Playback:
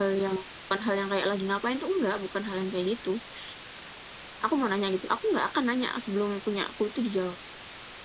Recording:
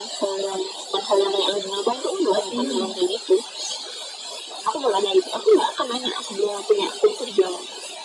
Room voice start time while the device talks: 2 s

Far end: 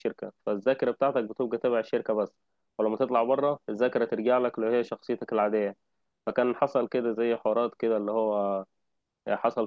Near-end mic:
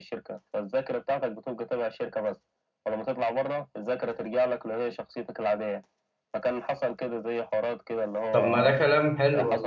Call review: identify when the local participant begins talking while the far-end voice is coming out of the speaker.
8 s

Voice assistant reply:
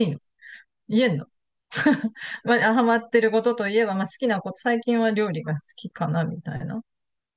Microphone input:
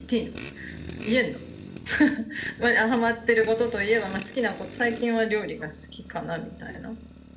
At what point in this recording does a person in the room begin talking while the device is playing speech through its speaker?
none

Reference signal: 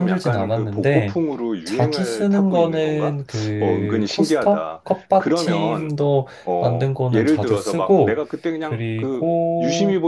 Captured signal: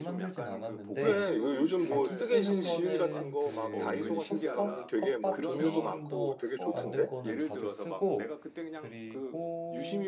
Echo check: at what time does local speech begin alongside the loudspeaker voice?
1 s

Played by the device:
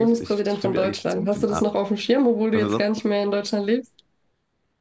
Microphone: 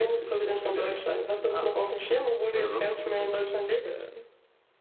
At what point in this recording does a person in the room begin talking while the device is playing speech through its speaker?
3 s

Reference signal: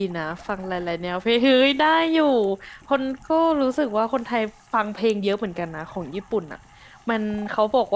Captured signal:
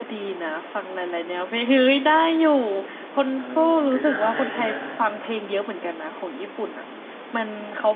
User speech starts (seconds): 3 s

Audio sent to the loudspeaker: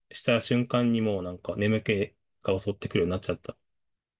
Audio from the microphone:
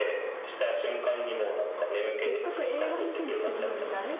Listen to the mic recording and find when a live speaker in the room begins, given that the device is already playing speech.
2 s

